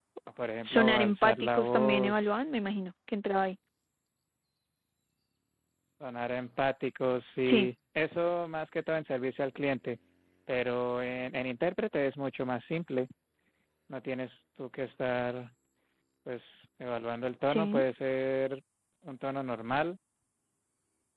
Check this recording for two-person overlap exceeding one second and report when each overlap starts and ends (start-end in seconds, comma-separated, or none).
0.6-2.3